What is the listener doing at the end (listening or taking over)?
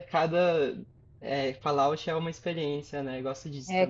taking over